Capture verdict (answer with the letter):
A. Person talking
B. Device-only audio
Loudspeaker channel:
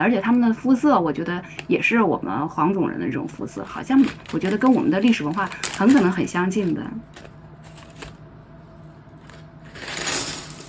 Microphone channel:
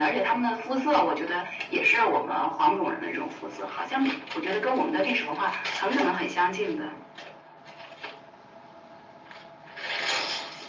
B